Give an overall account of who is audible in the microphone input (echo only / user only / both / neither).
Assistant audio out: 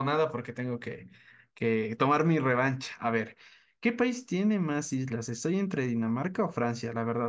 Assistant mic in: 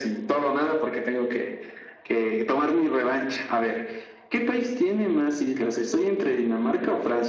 echo only